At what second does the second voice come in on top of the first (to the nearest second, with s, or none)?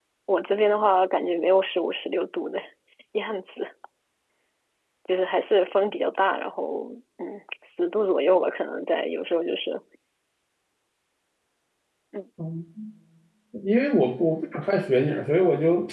none